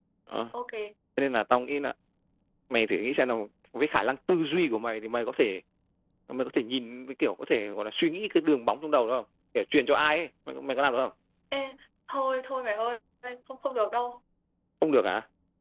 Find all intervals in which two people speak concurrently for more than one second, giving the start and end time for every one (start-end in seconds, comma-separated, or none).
none